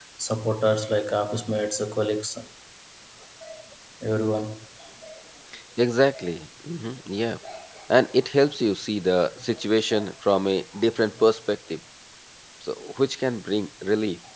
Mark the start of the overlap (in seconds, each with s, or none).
none